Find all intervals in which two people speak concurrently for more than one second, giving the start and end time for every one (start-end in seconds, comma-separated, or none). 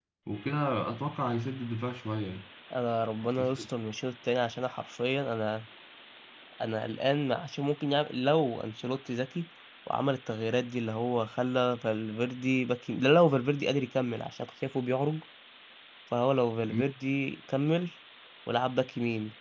none